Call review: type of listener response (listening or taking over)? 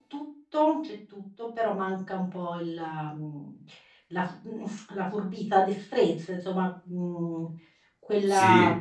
listening